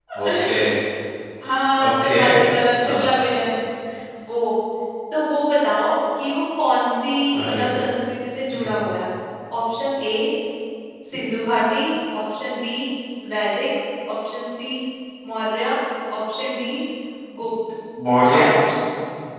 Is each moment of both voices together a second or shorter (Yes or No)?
Yes